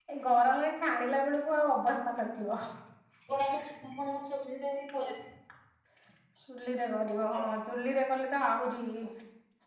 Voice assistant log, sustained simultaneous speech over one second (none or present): none